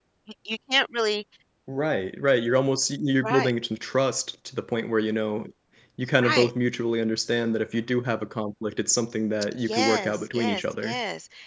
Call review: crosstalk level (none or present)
present